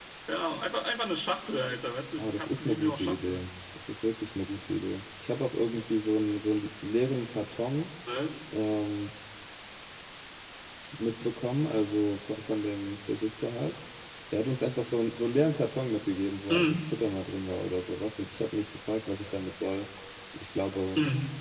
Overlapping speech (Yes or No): Yes